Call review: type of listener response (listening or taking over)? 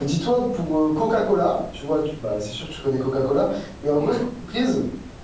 listening